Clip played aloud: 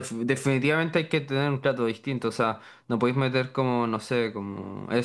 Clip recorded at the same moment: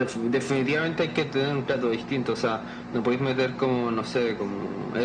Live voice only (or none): none